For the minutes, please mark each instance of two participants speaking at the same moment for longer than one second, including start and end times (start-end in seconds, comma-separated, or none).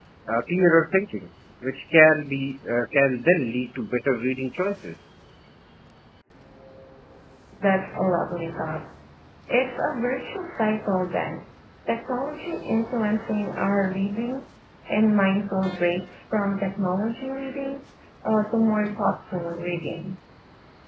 none